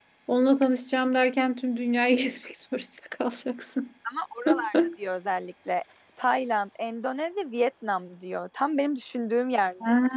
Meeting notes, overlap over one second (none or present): none